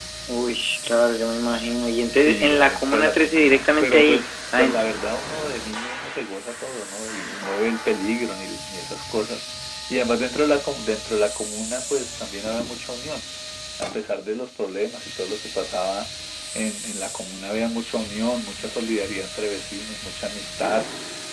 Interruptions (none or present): present